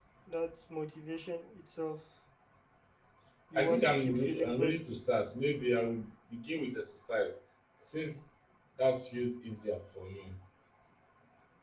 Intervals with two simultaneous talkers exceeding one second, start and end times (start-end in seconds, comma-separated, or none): 3.5-4.8